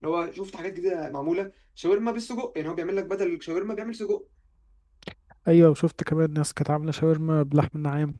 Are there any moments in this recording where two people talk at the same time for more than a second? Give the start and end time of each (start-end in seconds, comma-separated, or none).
none